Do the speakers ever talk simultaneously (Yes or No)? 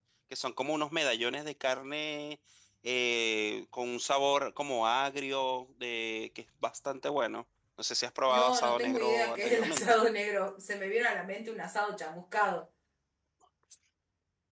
Yes